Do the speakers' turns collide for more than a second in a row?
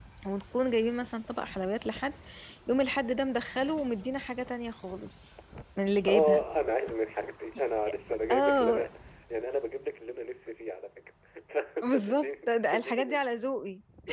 Yes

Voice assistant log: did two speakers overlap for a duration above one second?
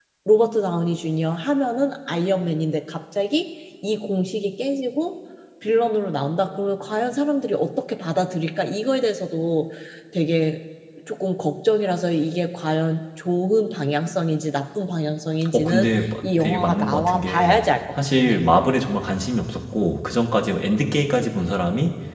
Yes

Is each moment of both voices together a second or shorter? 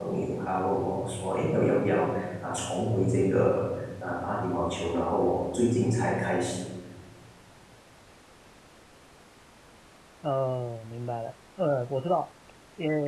Yes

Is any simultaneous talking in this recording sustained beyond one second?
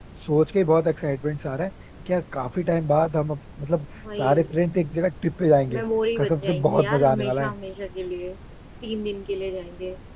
Yes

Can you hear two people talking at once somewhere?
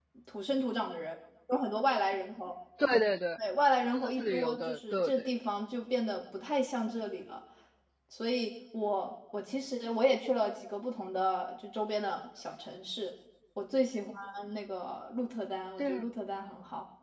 Yes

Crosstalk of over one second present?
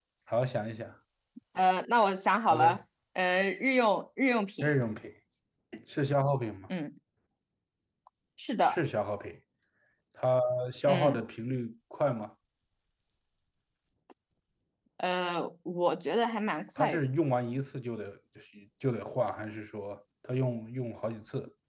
No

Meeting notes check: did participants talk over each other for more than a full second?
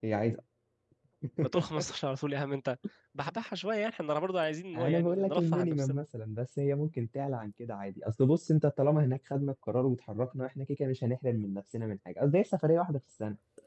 Yes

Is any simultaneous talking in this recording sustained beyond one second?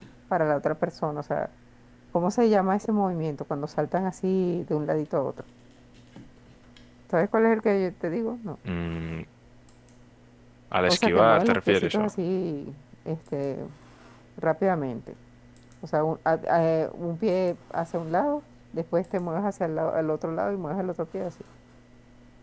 Yes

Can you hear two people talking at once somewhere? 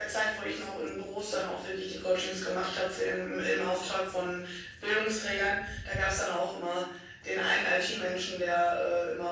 No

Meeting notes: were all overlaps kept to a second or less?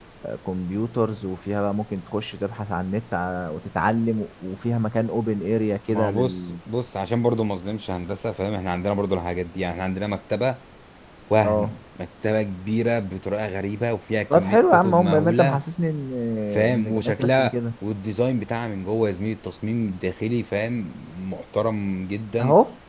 No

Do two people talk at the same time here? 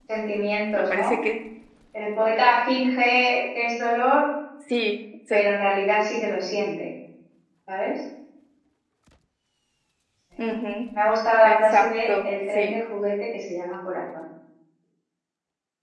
Yes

